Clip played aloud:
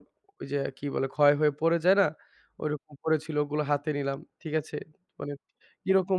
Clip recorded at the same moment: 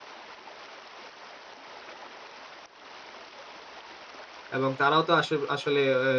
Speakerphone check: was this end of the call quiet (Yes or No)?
No